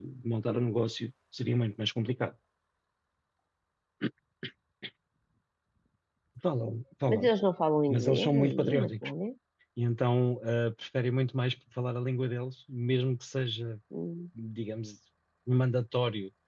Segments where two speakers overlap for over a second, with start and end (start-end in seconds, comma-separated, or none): 7.9-9.1